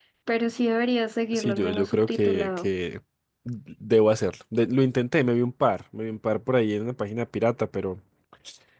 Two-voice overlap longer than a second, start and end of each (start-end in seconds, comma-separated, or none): 1.3-2.7